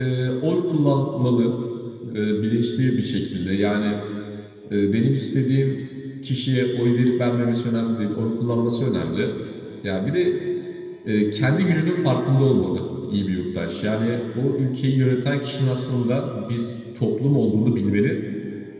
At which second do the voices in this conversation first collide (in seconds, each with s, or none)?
none